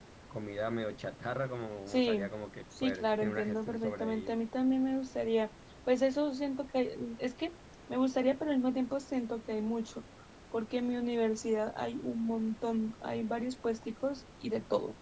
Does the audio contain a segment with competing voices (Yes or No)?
Yes